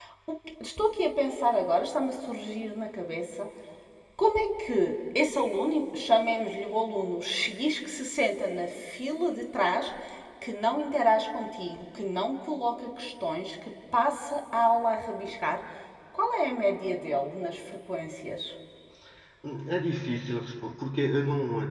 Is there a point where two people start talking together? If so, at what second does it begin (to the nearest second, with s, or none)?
none